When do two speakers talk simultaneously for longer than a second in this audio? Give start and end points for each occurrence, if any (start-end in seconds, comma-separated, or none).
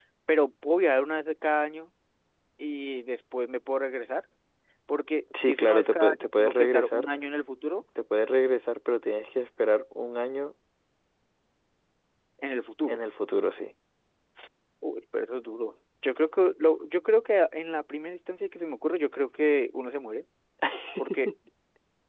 5.4-7.1